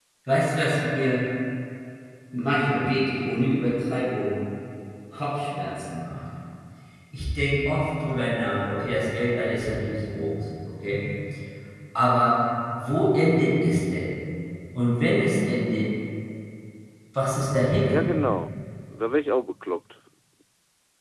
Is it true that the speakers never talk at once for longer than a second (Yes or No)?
Yes